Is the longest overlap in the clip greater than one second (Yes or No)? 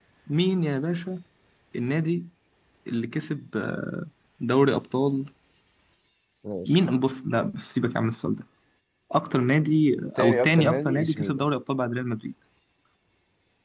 Yes